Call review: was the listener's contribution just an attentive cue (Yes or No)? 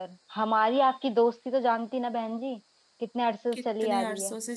No